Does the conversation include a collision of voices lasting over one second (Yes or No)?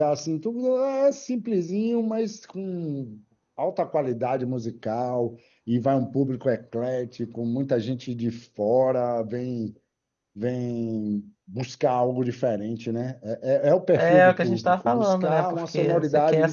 Yes